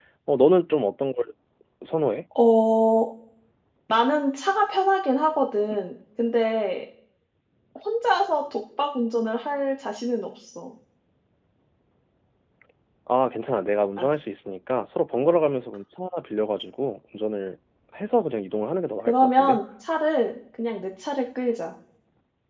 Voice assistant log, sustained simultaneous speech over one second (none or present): none